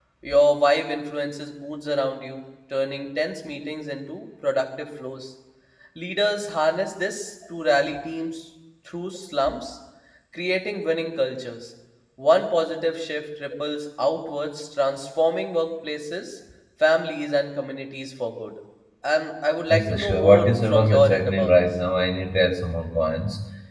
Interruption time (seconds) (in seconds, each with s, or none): 19.7 s